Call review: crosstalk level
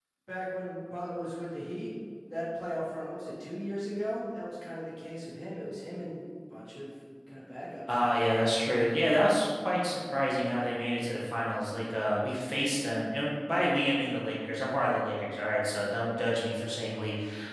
none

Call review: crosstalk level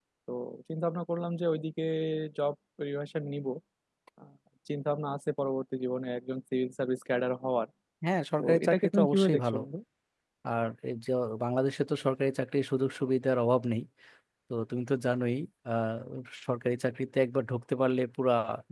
present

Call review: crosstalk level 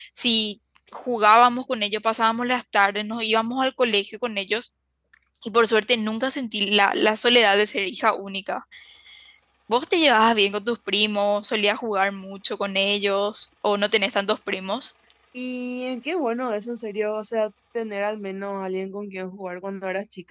none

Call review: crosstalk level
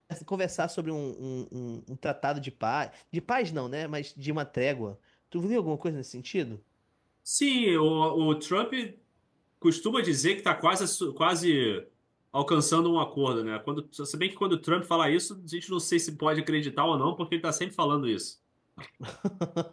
none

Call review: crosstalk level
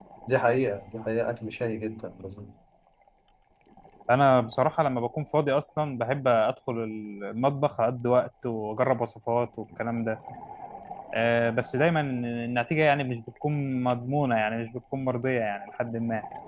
none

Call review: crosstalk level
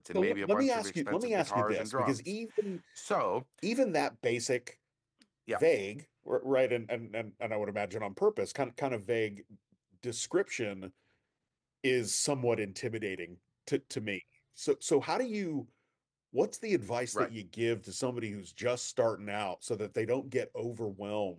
present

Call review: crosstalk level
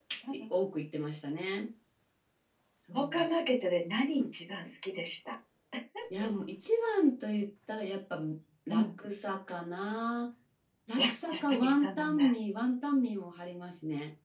present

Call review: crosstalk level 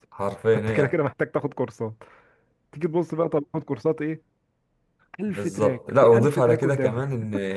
present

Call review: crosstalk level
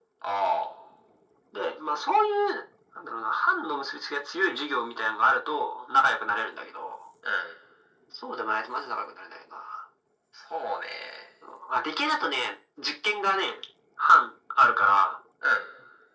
none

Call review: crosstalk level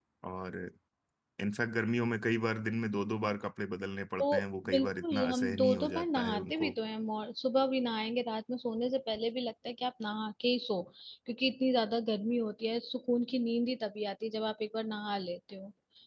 present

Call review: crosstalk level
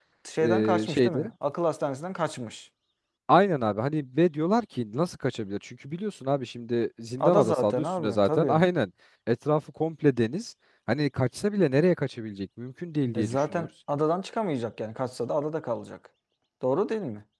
present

